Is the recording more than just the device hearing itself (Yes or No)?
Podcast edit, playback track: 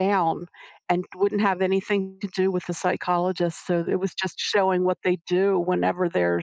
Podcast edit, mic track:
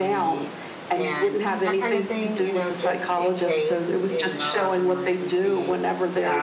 Yes